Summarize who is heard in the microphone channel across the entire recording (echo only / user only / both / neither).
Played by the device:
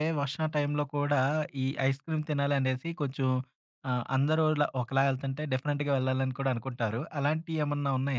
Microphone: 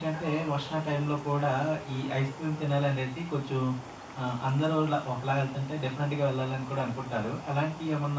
echo only